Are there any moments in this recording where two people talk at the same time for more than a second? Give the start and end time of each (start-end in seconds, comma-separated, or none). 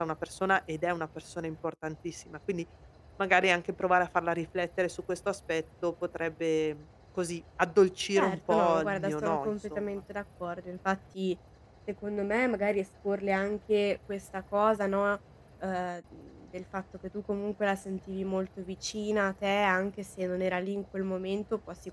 8.2-9.8